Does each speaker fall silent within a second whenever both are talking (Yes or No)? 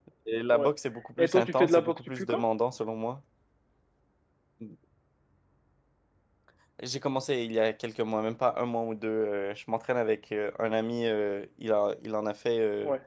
No